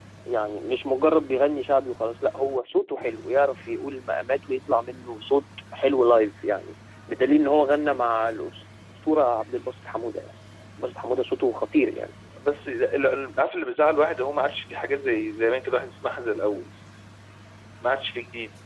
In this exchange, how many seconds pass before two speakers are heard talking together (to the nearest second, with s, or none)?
none